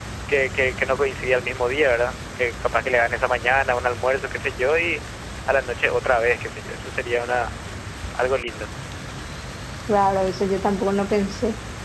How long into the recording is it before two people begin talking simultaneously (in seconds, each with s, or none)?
none